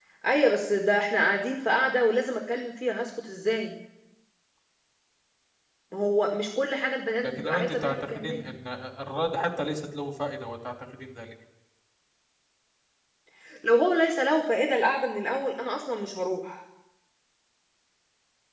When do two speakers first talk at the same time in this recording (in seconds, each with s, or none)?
7.2 s